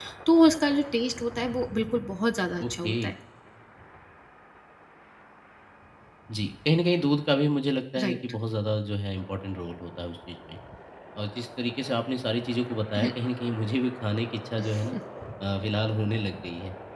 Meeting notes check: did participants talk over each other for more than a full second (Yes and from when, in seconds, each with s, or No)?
No